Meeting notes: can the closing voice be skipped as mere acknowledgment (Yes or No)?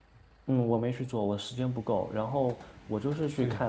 Yes